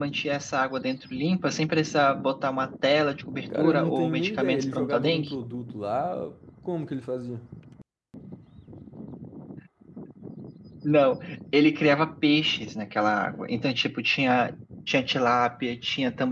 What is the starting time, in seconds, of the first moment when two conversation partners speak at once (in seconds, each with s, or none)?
3.5 s